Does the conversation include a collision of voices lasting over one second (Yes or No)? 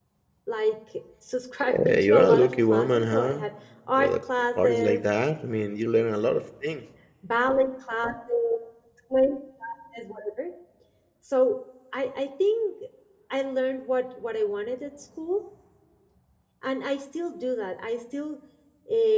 Yes